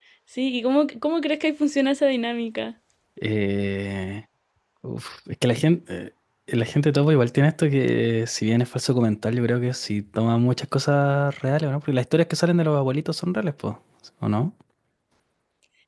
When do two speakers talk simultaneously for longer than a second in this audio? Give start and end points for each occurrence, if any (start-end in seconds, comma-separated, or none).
none